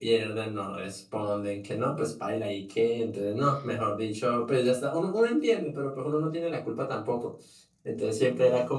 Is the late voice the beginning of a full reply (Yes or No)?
No